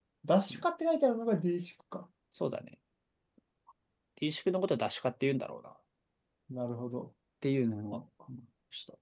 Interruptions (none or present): none